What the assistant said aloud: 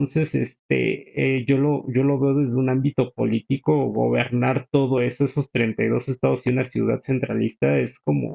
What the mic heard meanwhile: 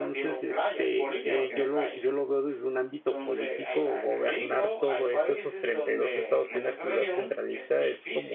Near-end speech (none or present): present